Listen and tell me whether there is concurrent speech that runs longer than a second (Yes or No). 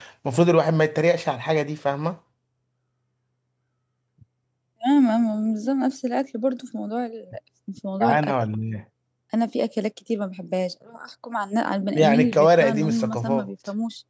Yes